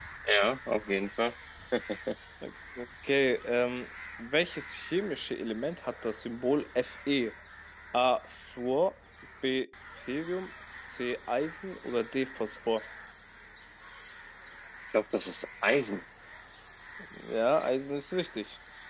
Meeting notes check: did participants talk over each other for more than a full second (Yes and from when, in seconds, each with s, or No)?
No